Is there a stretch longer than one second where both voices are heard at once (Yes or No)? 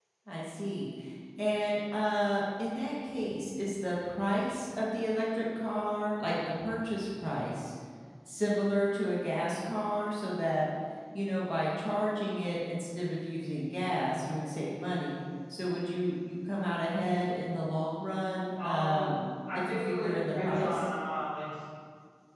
Yes